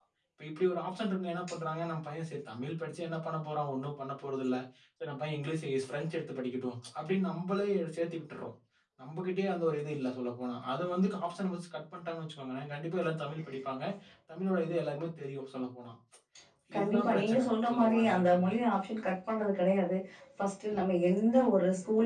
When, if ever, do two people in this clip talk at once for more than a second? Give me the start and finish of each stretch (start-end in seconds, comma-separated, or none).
16.8-18.5